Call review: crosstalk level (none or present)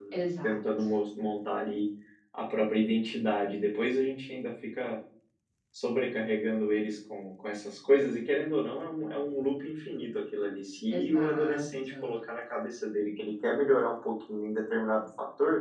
present